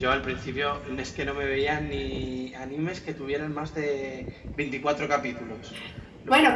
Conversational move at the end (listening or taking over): taking over